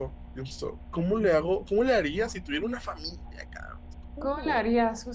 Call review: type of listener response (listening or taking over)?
taking over